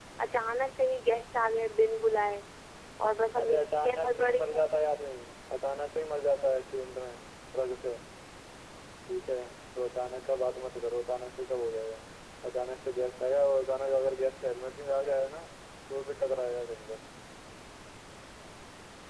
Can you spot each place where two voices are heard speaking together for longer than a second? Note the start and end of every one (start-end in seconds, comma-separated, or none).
3.4-4.6